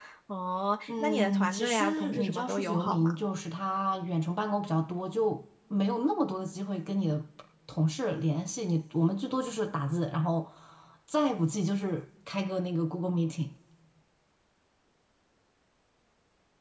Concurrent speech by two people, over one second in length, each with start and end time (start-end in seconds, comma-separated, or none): 0.9-3.1